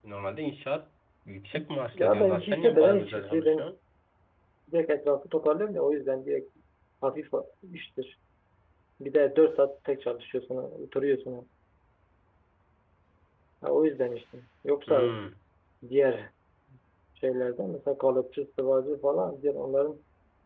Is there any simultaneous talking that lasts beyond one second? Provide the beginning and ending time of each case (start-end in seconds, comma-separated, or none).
2.0-3.7